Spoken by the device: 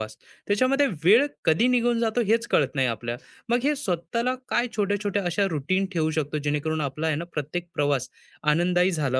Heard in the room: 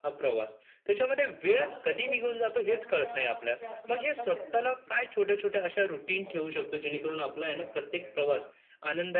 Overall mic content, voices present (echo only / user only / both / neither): both